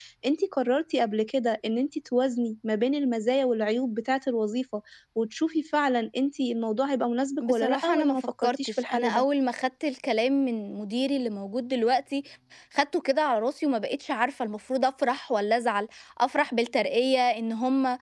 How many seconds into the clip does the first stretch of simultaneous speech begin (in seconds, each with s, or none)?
7.4 s